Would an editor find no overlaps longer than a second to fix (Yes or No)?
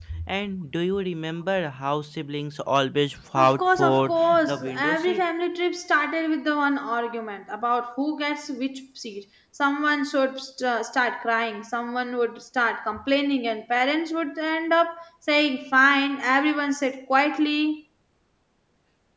No